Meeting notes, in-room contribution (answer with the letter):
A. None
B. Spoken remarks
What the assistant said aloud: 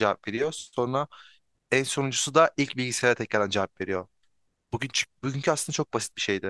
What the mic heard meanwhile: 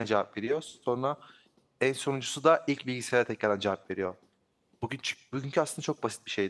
A